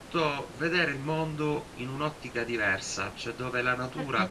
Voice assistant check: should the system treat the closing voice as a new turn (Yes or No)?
Yes